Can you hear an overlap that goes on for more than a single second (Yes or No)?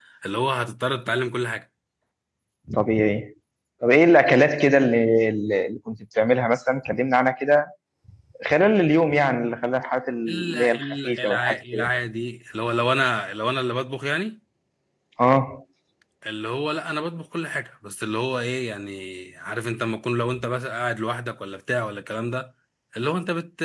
Yes